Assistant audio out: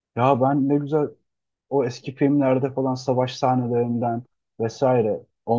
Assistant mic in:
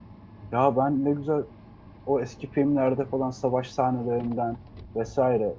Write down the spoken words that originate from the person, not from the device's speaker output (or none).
none